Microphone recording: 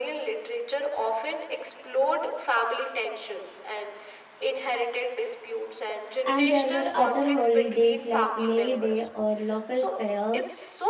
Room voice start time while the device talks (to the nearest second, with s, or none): 6 s